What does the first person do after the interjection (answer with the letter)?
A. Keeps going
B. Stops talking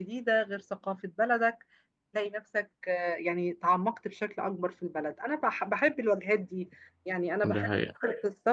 A